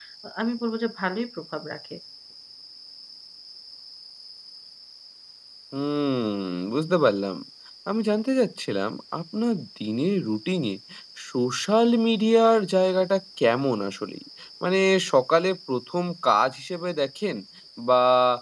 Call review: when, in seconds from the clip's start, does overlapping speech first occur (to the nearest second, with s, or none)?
none